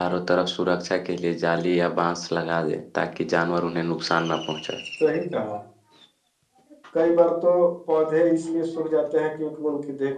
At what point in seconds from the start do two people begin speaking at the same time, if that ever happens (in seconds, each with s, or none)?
none